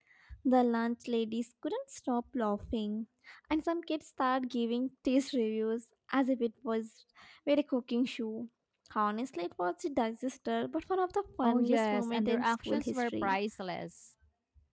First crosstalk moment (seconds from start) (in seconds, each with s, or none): 11.4 s